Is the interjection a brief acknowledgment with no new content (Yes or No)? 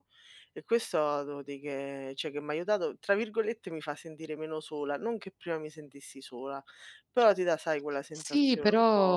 No